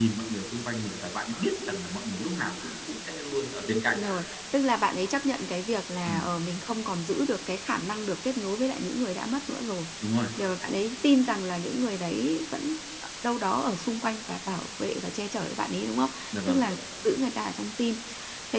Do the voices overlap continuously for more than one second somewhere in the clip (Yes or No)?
No